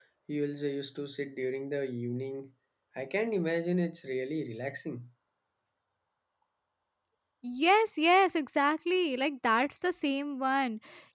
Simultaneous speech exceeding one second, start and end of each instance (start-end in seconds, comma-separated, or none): none